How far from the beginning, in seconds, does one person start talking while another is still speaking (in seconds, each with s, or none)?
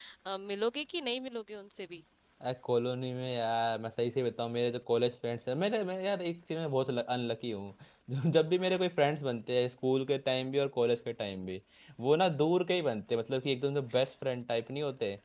none